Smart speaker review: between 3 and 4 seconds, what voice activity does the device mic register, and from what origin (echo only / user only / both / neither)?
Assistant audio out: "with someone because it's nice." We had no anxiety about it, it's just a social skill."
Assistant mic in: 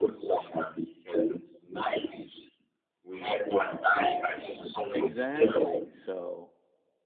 echo only